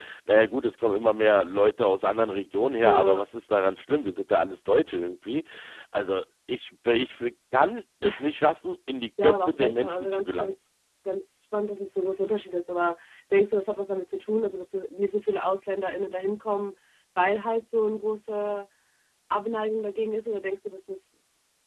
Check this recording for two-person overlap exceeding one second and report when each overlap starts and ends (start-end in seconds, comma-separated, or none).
9.2-10.5